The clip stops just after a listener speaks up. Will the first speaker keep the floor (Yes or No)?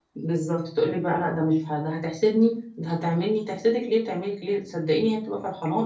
No